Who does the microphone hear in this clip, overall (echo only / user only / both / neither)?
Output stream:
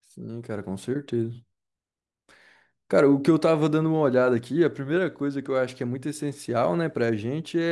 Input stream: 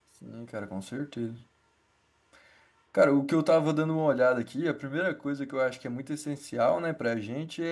echo only